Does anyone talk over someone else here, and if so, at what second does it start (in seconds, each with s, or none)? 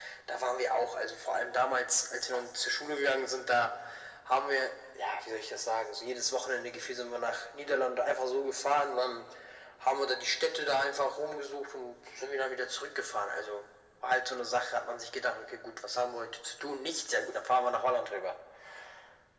none